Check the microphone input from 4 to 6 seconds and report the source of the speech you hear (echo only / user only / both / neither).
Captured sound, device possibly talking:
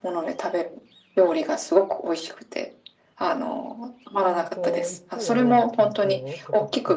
both